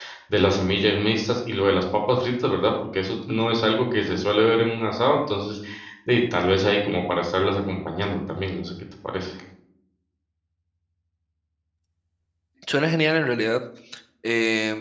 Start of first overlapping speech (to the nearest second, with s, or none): none